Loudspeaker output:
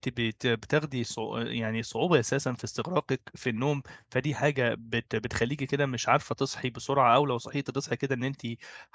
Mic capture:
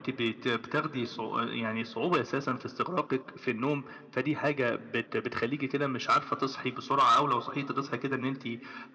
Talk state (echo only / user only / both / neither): echo only